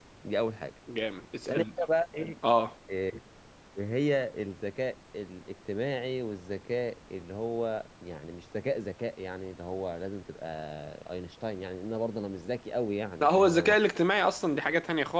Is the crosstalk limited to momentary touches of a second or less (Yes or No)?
Yes